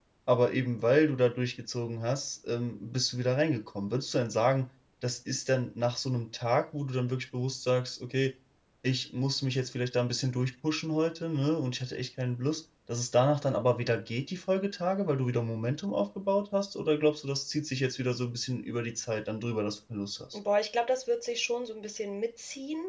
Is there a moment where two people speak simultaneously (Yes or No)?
No